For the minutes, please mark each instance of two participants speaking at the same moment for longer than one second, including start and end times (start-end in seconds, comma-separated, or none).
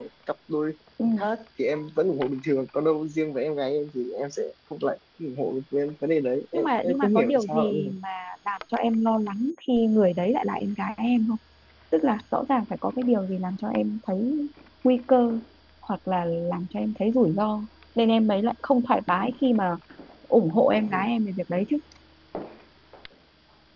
6.5-7.9